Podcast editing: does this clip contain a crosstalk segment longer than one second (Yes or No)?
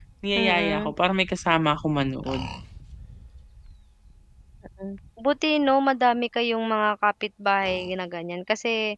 No